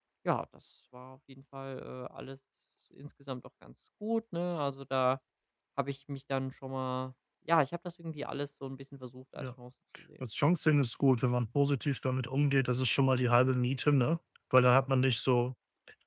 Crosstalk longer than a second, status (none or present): none